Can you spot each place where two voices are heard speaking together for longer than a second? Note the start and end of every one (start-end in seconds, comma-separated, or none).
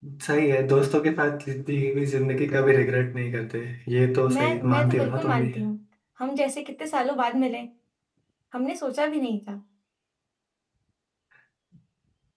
4.3-5.5